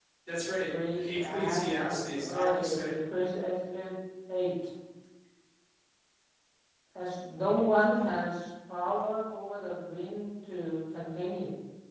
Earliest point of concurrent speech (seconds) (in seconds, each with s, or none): 0.7 s